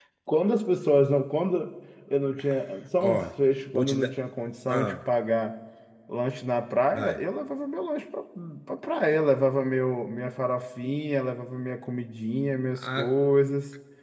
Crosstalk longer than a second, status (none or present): none